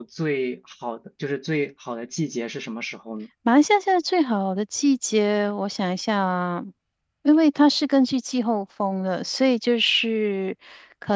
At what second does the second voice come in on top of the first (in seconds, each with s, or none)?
none